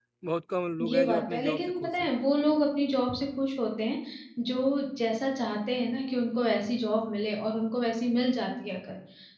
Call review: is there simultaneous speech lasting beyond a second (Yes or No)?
Yes